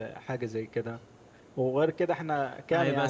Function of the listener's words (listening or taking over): taking over